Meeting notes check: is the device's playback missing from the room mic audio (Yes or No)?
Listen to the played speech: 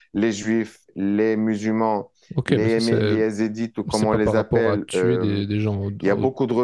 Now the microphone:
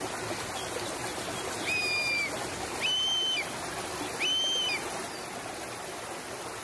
Yes